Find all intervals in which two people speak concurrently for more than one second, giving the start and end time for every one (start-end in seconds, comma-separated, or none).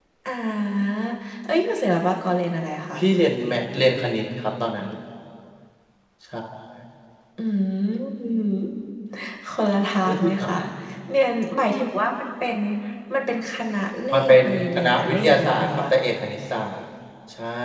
14.1-15.7